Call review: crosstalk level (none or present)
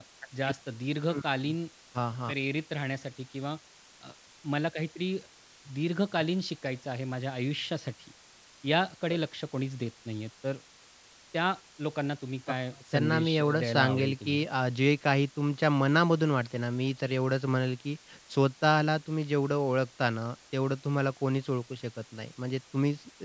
present